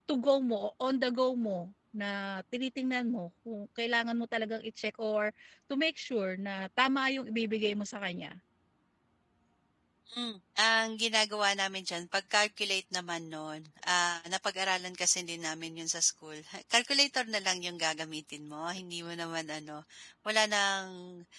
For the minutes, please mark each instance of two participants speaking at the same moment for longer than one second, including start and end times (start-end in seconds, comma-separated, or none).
none